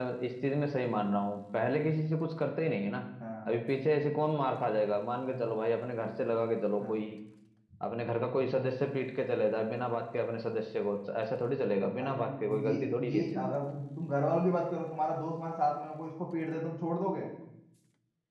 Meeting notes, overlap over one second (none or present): present